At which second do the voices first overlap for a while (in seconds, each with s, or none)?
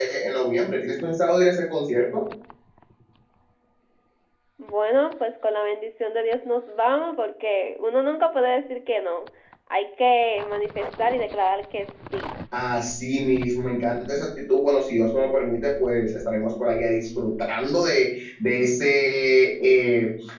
none